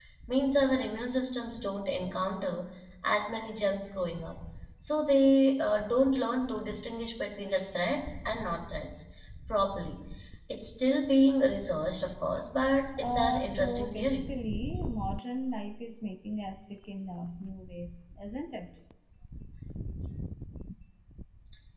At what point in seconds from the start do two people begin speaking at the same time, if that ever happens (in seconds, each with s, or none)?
13.0 s